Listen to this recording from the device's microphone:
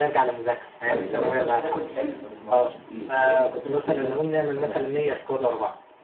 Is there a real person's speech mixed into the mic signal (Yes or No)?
Yes